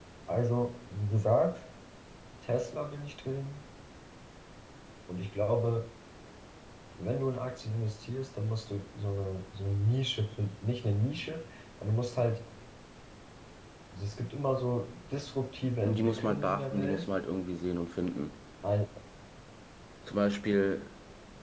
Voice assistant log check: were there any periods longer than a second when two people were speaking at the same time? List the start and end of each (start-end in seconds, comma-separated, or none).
15.8-17.1